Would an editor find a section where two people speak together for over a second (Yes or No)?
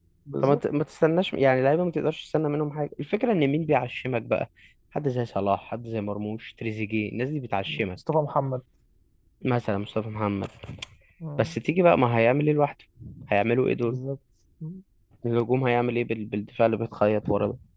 No